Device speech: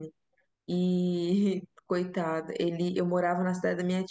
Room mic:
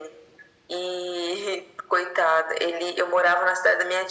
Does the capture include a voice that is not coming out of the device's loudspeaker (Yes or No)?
No